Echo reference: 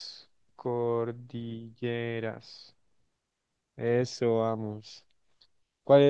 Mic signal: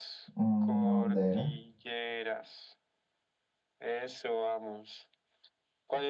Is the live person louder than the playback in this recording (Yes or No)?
Yes